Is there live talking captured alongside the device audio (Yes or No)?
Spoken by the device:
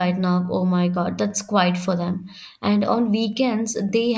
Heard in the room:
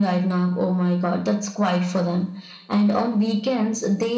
No